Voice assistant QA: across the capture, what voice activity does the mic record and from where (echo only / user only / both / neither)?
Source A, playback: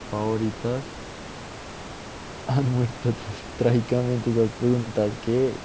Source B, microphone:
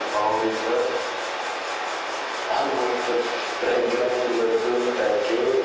echo only